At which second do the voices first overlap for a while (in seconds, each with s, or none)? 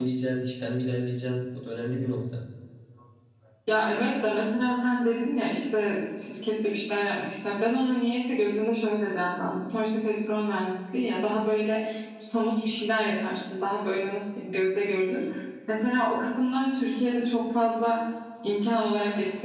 none